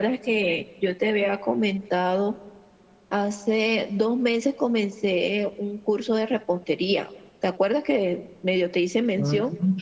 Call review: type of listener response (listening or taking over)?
taking over